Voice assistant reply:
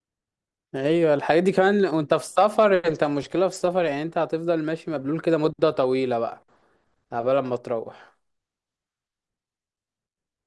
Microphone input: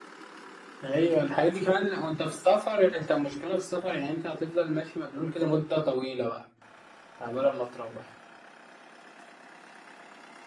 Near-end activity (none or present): none